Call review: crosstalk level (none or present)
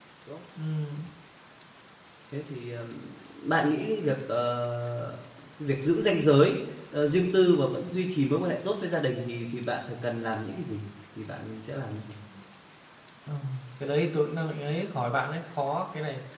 none